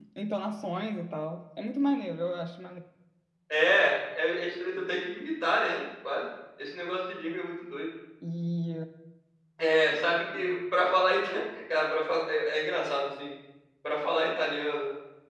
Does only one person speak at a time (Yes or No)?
Yes